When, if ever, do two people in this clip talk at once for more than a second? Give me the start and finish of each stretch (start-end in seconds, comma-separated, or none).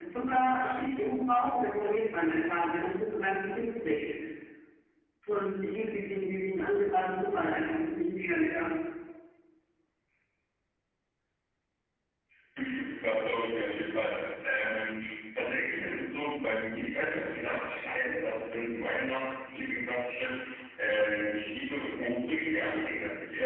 none